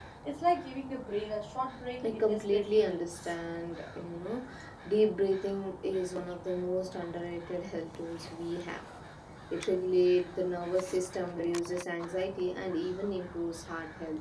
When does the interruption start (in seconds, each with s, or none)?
2.0 s